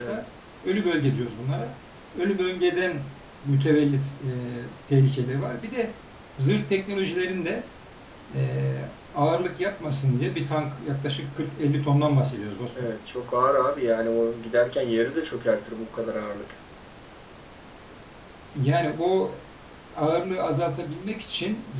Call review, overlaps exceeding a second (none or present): none